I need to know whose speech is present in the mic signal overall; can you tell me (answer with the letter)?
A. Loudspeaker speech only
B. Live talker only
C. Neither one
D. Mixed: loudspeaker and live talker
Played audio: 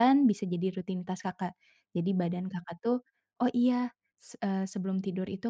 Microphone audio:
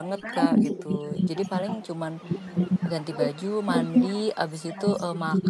D